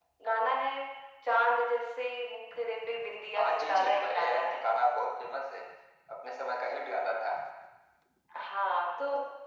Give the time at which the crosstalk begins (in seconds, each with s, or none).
3.4 s